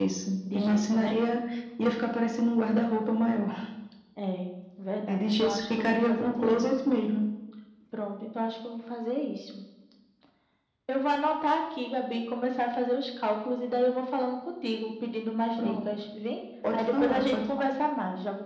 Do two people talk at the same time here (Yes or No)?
Yes